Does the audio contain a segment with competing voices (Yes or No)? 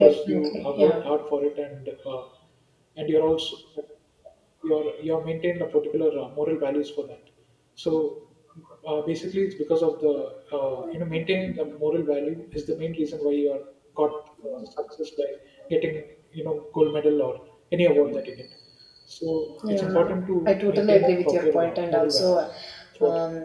Yes